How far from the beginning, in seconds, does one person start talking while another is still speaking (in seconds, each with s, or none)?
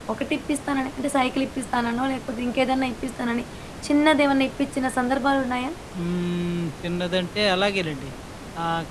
none